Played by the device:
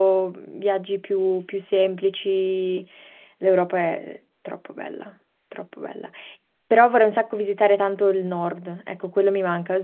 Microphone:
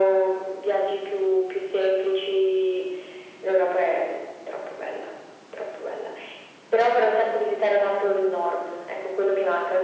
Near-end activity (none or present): none